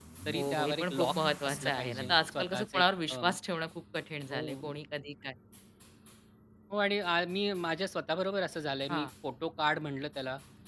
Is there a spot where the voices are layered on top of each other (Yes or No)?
Yes